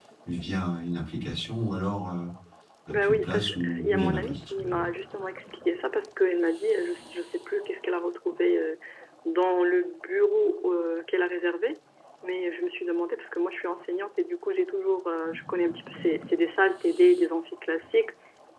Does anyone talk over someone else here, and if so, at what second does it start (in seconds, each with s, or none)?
3.0 s